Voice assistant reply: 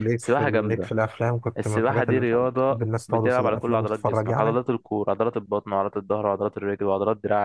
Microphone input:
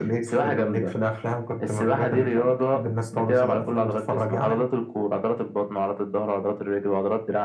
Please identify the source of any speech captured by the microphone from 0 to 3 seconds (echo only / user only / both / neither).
echo only